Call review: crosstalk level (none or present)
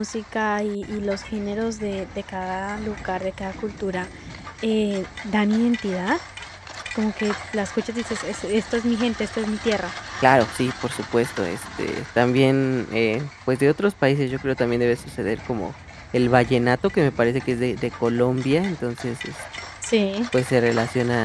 none